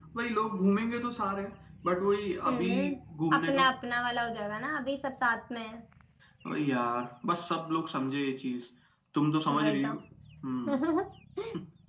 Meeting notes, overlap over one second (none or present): none